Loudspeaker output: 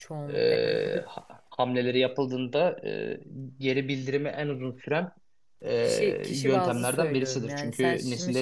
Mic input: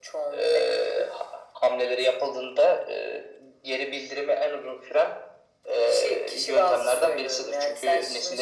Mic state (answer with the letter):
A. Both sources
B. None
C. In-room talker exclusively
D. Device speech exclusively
D